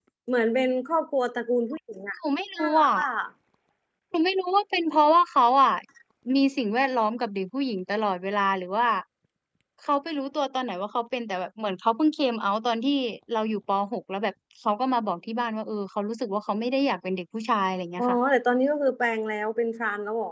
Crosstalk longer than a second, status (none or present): none